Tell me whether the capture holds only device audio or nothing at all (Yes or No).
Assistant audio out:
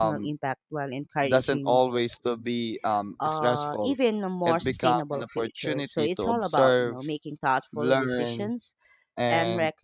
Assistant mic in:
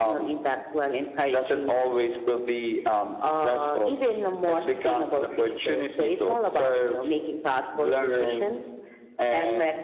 Yes